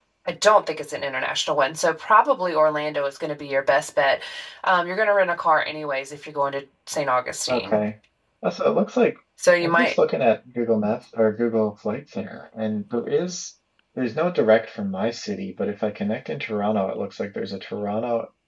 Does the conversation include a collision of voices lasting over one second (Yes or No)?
No